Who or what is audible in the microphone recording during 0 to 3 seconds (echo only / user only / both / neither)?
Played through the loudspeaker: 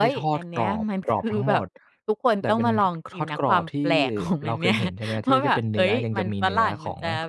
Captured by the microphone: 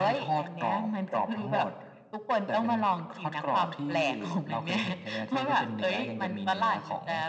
echo only